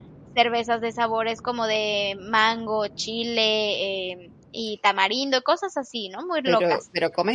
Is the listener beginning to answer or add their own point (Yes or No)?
Yes